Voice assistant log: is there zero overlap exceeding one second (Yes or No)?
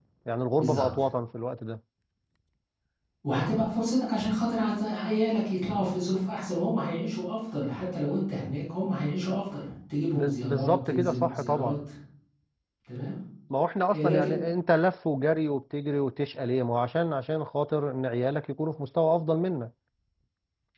No